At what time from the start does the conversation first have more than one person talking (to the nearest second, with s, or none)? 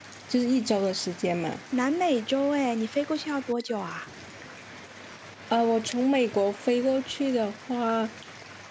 none